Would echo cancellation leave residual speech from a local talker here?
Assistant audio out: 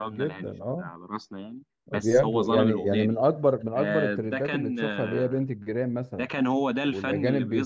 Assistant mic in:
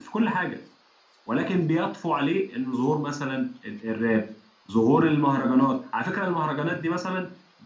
Yes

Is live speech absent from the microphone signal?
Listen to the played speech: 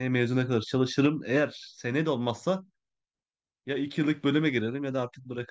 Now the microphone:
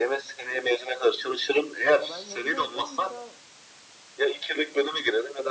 No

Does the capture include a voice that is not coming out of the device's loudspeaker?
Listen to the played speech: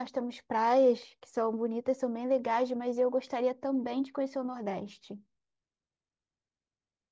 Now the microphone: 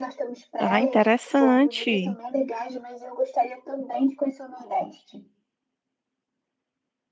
Yes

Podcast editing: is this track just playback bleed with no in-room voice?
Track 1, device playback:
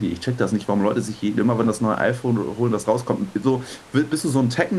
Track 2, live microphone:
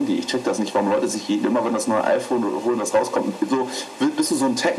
Yes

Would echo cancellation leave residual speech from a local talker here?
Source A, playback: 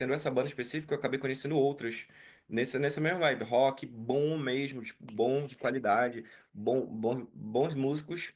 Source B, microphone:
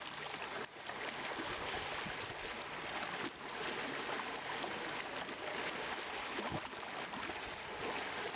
No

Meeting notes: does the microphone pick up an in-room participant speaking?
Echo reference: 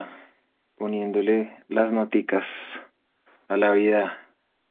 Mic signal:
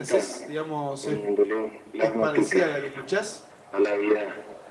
Yes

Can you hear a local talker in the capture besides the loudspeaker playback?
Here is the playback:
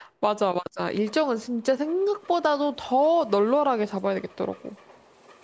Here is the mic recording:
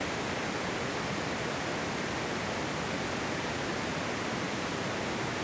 No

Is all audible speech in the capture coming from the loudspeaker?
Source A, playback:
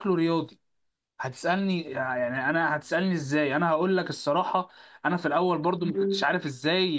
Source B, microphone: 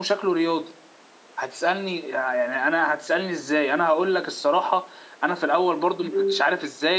Yes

